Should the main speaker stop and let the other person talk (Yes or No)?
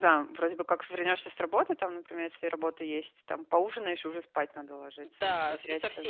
Yes